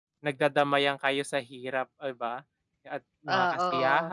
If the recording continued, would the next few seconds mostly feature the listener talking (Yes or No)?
No